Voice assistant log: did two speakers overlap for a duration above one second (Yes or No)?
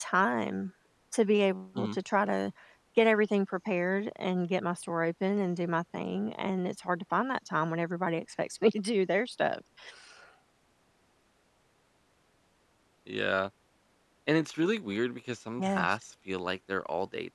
No